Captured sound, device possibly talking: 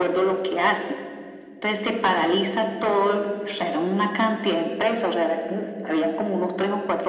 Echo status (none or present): present